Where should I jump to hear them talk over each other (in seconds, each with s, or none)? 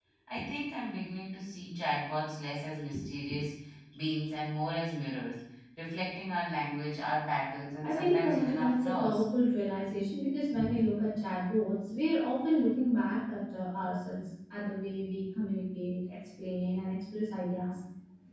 7.8 s